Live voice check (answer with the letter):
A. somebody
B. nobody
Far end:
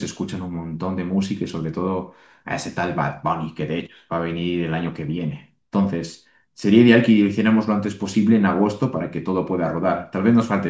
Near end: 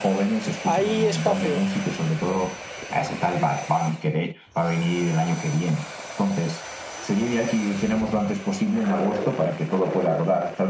A